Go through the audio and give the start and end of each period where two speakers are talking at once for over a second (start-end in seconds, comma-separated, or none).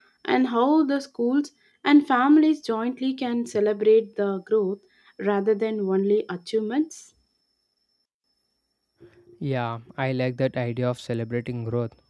none